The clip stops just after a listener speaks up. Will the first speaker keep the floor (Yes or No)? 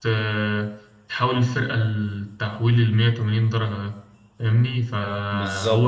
Yes